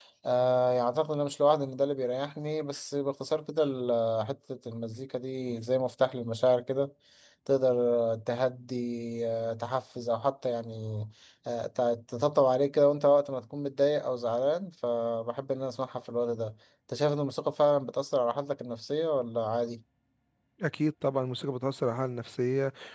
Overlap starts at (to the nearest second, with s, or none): none